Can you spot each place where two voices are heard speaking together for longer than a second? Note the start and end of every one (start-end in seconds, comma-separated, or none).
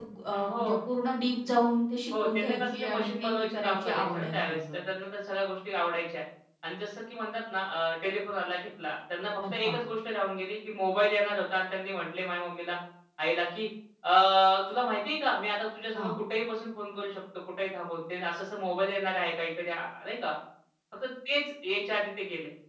2.1-4.6